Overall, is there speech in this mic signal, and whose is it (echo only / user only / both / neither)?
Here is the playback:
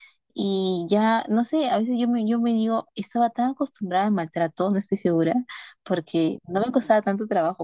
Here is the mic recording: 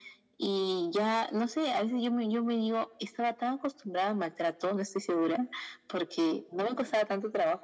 echo only